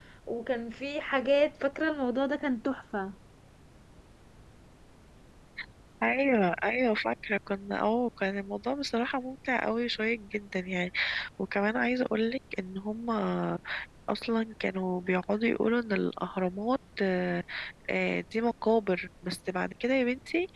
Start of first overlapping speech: none

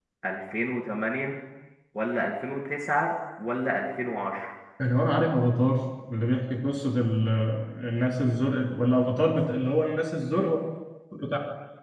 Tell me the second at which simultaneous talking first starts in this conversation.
none

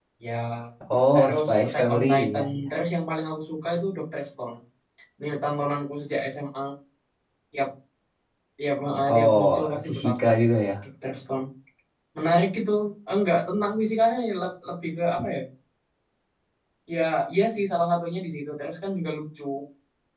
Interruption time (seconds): 1.1 s

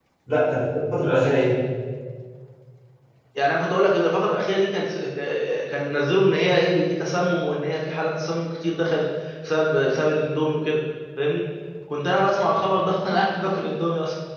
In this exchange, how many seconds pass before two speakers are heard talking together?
none

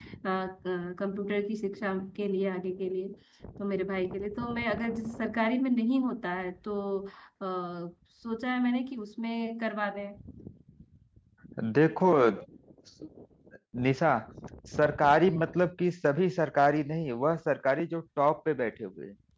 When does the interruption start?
none

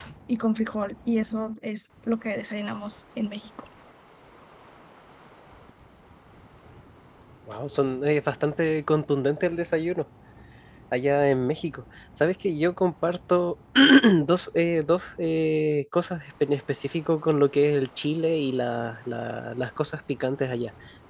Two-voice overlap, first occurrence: none

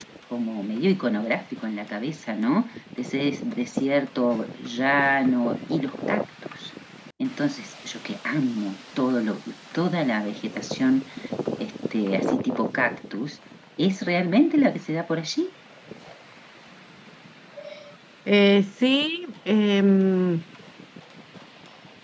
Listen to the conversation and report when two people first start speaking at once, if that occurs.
none

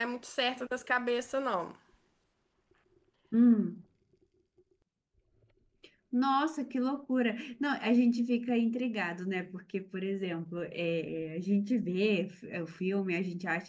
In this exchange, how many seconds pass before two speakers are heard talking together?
none

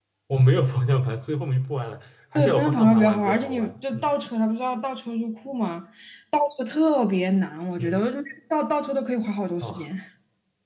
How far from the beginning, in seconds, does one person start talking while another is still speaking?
2.4 s

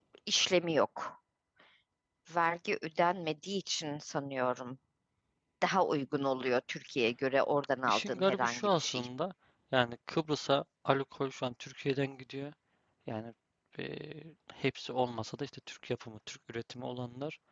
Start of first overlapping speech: 7.9 s

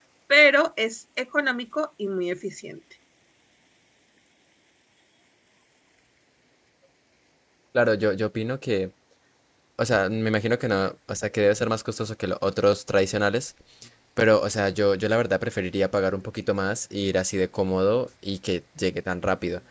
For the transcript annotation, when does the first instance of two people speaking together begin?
none

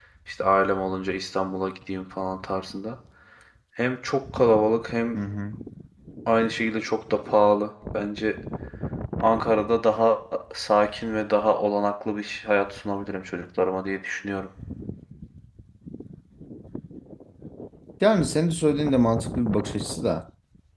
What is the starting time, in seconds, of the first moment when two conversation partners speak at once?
none

